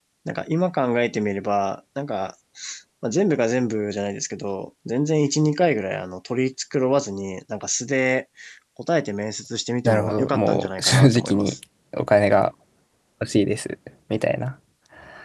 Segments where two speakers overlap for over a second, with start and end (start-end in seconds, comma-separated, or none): 9.8-11.6